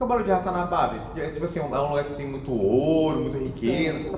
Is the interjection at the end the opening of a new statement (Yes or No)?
Yes